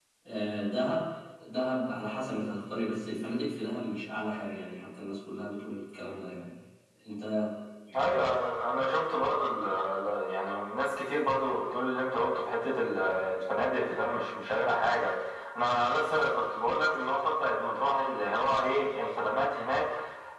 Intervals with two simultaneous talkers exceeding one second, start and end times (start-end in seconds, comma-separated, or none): none